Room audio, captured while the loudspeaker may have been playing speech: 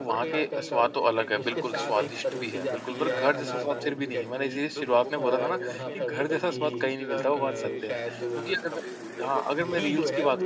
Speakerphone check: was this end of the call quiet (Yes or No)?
No